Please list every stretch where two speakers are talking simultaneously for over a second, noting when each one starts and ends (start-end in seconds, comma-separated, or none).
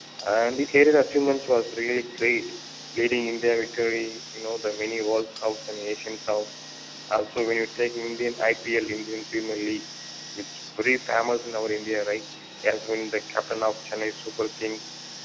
none